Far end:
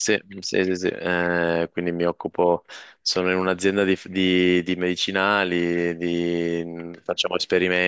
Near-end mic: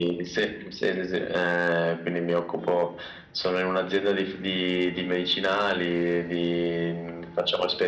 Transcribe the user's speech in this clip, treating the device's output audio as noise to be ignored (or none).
none